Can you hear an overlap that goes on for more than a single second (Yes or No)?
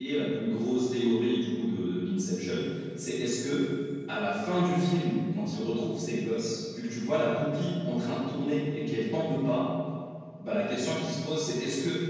No